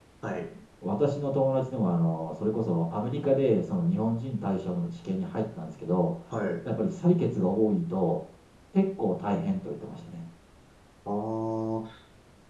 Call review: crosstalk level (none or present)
none